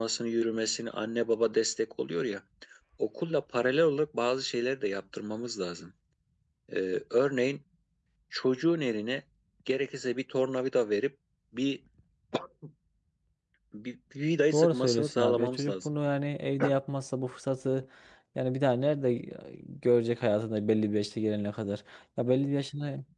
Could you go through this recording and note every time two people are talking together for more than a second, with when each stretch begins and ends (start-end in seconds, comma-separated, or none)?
14.5-15.9